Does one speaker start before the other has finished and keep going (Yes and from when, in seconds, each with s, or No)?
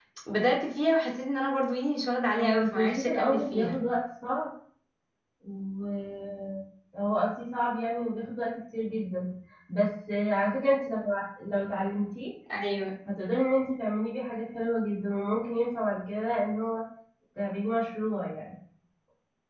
Yes, from 2.4 s